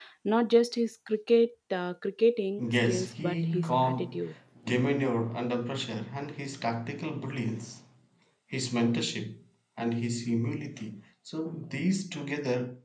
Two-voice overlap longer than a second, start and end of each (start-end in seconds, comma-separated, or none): 2.9-4.2